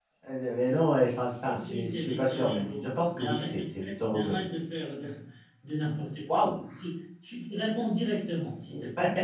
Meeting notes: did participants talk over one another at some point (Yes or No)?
Yes